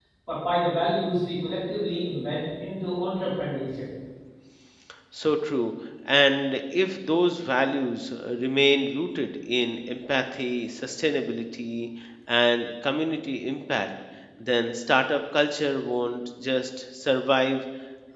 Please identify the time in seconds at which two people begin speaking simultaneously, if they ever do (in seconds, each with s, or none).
none